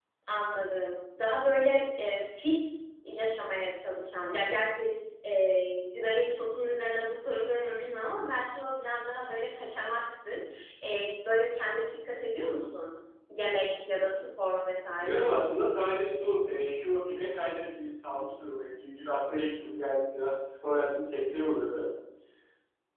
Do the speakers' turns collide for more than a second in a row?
No

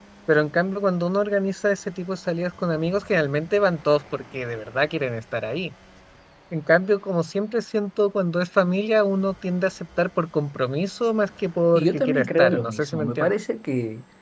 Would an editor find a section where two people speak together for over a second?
Yes, from 11.8 s

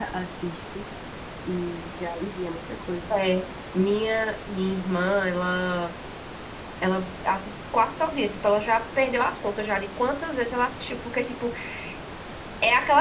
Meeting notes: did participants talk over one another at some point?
No

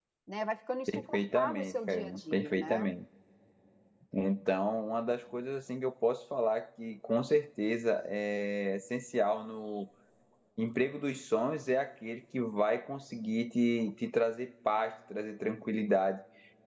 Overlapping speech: Yes, from 0.9 s

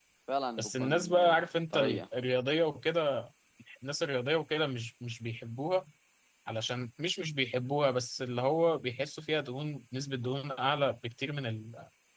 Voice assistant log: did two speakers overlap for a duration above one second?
Yes, from 0.6 s

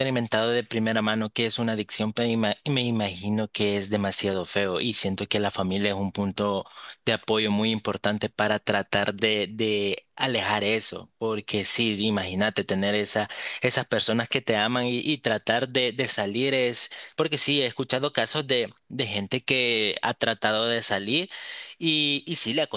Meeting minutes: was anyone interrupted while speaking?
No

